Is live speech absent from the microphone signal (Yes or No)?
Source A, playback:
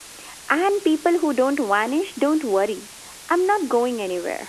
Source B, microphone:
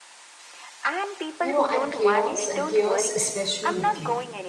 No